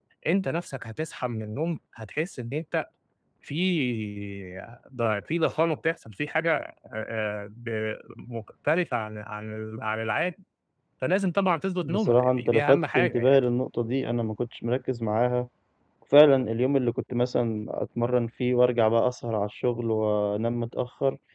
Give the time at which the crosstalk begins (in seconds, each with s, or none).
11.8 s